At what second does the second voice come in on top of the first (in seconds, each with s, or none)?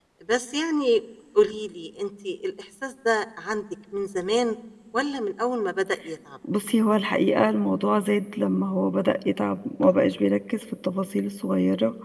none